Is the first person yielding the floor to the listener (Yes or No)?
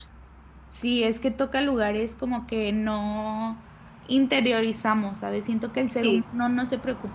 No